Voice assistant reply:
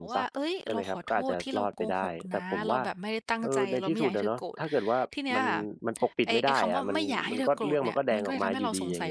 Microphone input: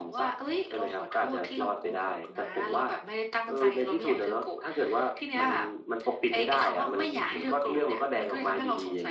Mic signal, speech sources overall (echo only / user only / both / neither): echo only